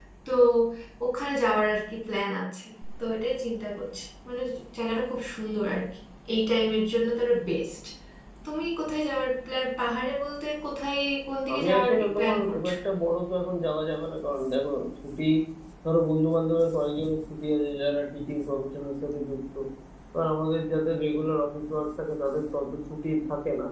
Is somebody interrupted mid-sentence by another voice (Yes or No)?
Yes